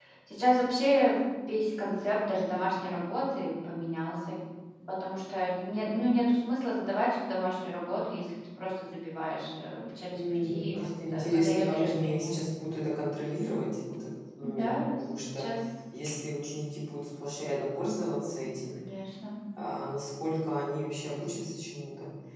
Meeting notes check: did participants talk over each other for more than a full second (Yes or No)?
Yes